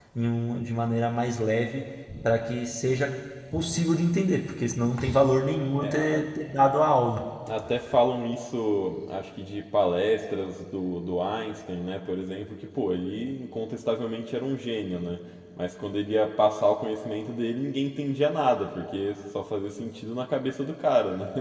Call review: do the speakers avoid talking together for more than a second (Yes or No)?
Yes